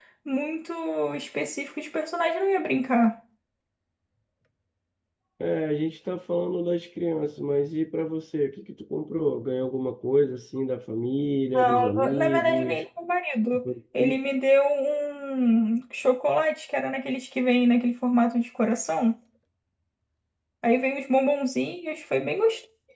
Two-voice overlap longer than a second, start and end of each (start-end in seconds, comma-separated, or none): 11.5-12.8